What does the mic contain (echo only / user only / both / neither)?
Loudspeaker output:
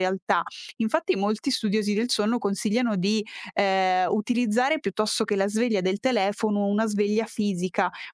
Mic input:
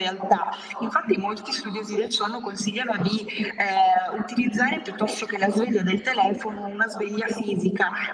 echo only